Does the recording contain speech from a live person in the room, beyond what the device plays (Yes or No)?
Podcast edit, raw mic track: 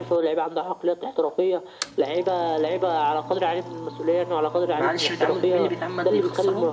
Yes